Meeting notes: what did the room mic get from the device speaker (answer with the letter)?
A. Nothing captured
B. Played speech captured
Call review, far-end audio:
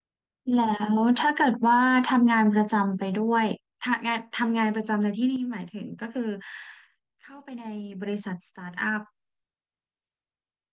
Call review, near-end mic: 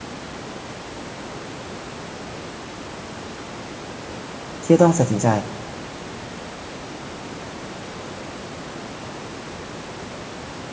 A